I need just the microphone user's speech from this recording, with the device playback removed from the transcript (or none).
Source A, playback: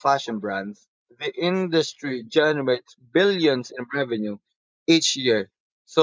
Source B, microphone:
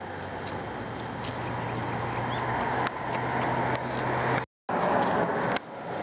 none